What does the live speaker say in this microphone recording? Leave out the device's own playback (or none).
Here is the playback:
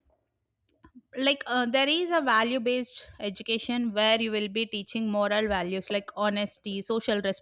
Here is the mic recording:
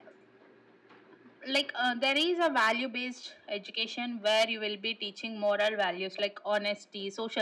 none